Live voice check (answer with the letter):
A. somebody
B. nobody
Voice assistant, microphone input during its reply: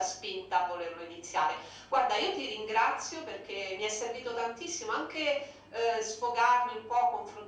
B